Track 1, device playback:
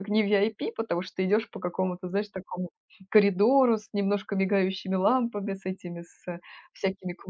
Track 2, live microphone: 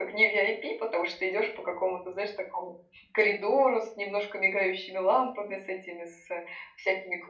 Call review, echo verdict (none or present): present